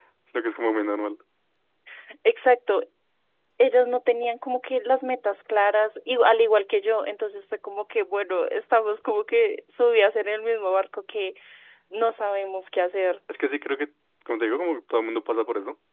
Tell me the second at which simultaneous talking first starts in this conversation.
none

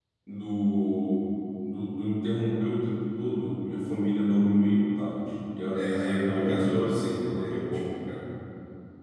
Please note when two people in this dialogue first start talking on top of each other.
5.7 s

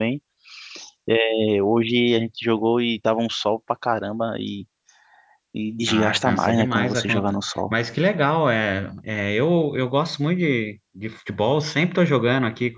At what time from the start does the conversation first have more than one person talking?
5.9 s

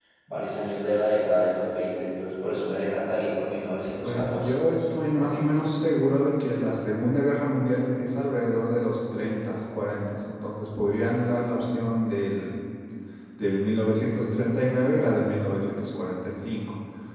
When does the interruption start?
4.0 s

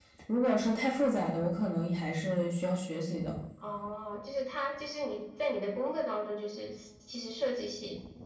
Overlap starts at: none

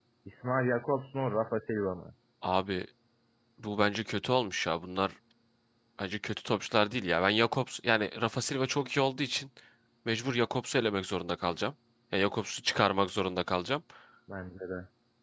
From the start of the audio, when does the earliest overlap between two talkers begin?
none

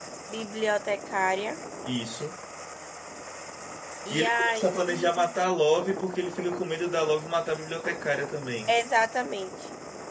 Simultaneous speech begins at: 4.1 s

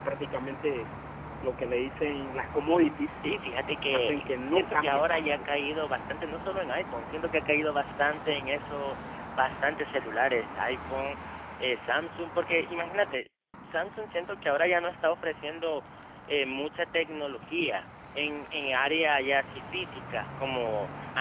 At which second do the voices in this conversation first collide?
3.9 s

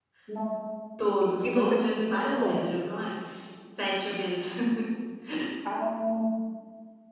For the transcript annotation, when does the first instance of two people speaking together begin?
1.4 s

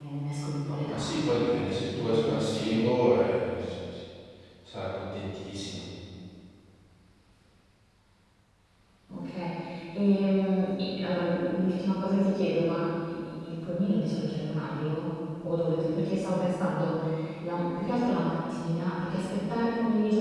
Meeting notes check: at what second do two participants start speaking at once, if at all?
0.8 s

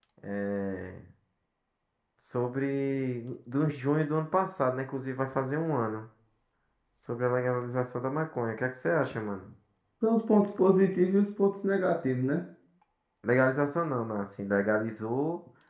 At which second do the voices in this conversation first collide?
none

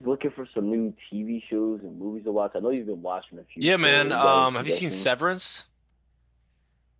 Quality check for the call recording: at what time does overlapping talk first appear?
3.6 s

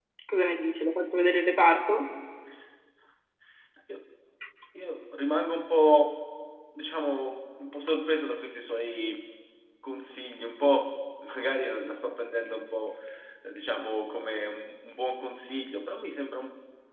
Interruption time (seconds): none

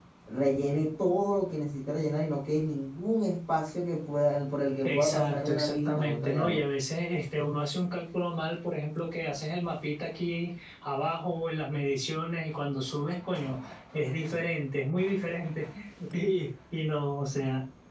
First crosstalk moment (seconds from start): 4.8 s

